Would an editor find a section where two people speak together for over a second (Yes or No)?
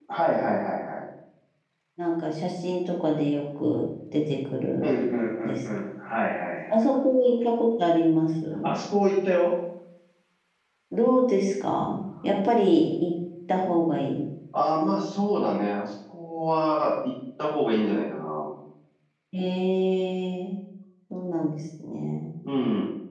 No